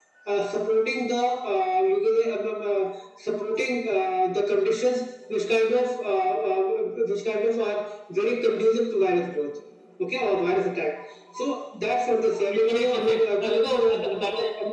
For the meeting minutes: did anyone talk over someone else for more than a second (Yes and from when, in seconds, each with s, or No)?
Yes, from 12.5 s